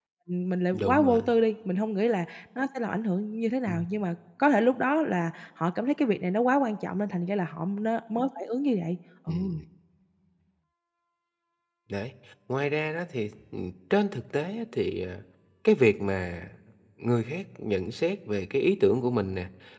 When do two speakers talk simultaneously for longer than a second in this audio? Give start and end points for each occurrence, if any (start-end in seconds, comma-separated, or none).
none